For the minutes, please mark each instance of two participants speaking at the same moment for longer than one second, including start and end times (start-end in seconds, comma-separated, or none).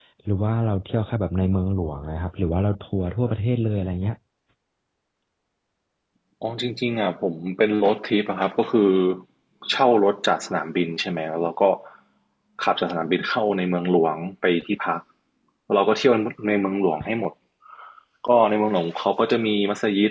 none